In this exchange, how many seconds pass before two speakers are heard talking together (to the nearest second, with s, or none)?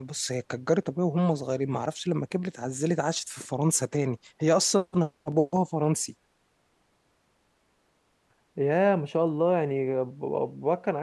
none